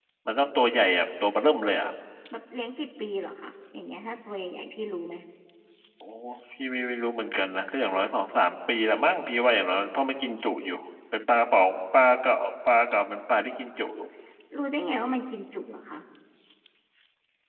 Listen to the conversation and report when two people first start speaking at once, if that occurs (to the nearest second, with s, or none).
none